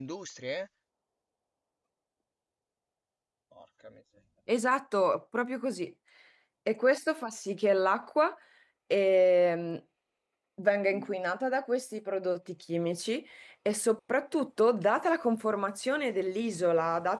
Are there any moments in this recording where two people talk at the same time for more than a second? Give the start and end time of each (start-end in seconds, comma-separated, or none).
none